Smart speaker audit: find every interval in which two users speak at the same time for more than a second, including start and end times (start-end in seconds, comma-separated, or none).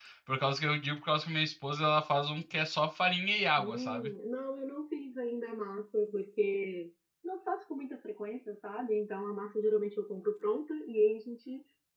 none